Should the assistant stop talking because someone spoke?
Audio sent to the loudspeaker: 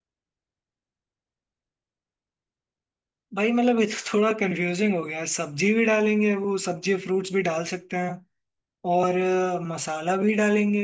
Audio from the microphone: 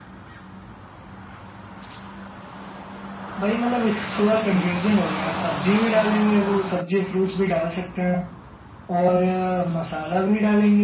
No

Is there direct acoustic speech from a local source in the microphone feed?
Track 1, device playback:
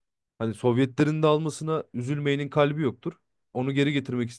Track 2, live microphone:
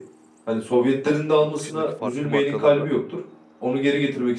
Yes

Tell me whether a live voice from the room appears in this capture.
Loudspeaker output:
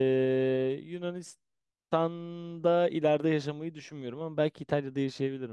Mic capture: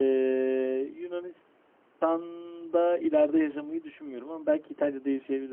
No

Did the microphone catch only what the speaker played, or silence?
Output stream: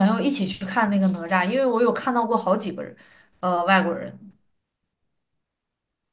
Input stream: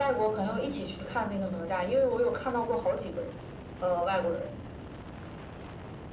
Yes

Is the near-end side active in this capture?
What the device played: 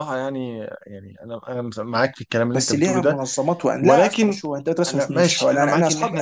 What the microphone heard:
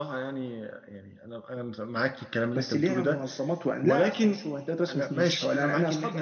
No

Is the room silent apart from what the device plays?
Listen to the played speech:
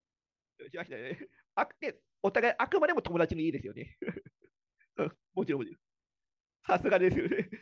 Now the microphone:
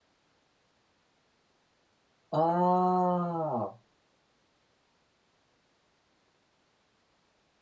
No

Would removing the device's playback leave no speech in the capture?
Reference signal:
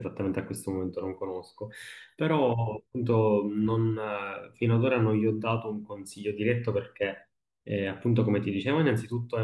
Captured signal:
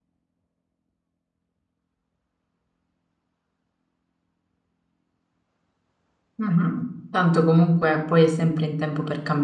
No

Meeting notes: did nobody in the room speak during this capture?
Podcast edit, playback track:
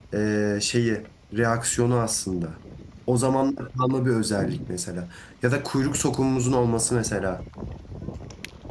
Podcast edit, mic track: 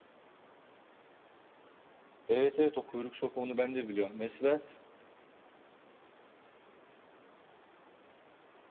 No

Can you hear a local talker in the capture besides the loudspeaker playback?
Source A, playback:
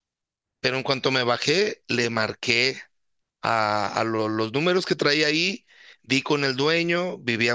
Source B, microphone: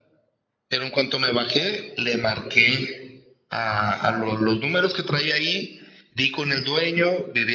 No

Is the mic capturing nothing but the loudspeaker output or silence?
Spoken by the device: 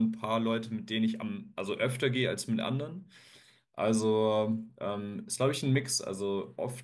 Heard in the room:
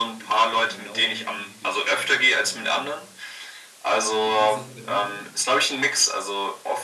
No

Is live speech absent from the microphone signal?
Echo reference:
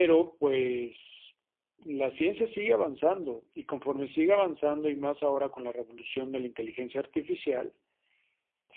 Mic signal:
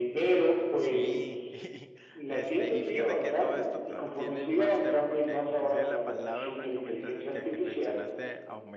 No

